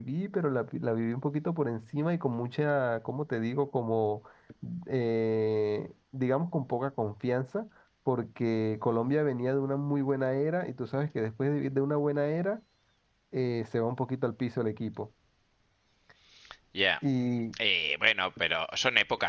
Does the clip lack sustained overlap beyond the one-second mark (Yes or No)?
Yes